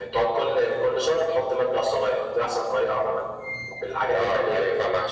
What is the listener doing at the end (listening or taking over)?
taking over